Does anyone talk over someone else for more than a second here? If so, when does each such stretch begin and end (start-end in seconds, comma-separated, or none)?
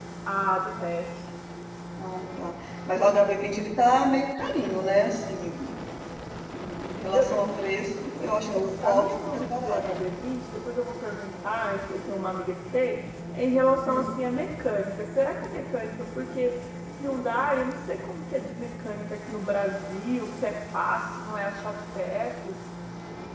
8.2-9.8